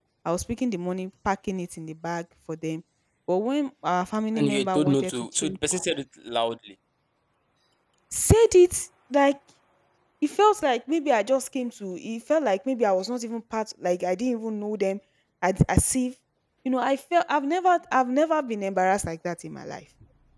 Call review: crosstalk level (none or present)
present